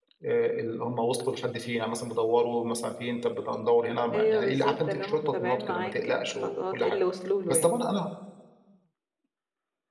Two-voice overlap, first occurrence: 4.1 s

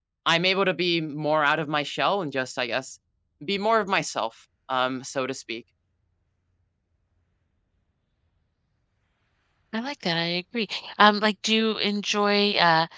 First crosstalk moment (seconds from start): none

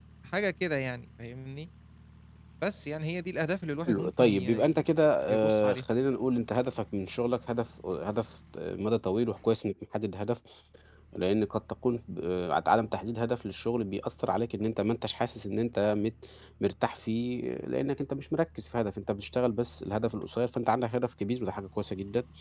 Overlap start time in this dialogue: 3.9 s

